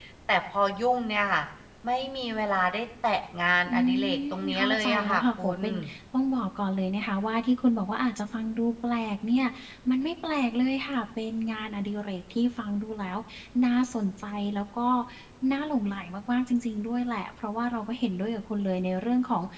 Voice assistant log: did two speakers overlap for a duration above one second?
Yes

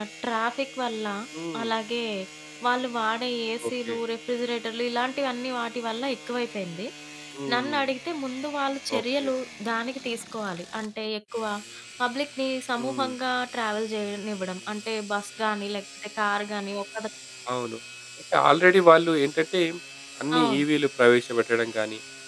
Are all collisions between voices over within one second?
Yes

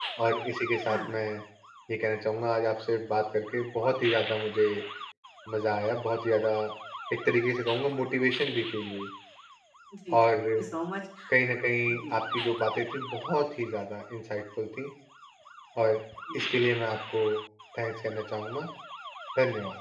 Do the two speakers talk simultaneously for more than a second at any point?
No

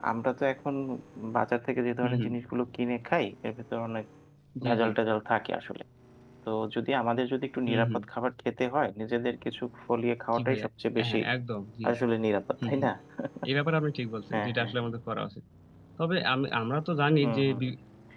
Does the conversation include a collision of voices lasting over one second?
No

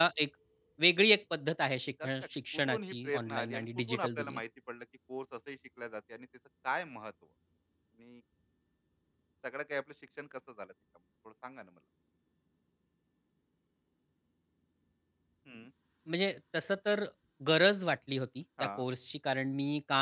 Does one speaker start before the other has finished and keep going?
Yes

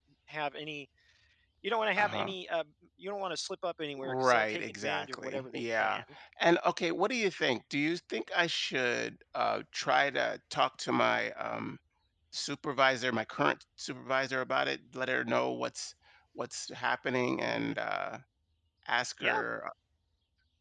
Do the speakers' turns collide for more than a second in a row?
Yes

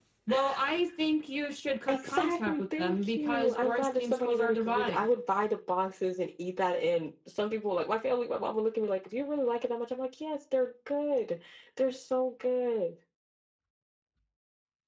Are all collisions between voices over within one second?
No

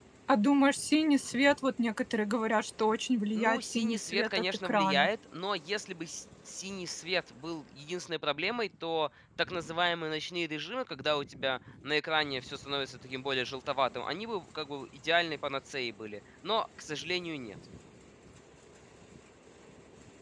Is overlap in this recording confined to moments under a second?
No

